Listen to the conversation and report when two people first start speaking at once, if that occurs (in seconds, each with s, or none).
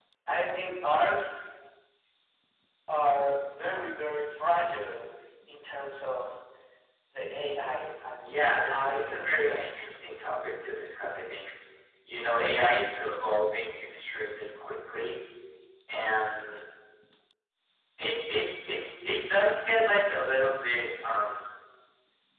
8.2 s